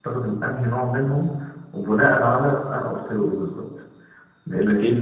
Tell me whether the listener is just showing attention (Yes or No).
Yes